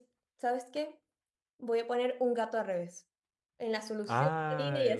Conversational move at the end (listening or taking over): taking over